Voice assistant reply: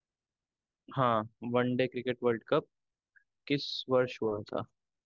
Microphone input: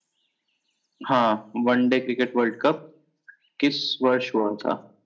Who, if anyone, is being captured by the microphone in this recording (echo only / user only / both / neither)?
echo only